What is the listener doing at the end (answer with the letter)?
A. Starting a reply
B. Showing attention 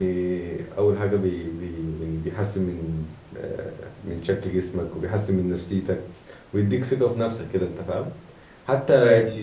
B